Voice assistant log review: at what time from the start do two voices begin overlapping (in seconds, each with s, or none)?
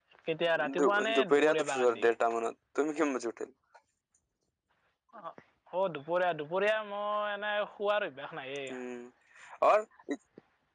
0.8 s